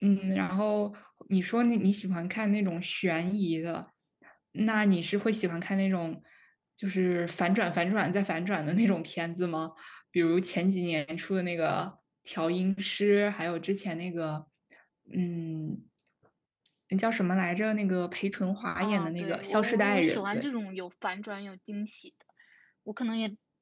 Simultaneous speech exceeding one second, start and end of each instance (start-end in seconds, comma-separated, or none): 18.8-20.5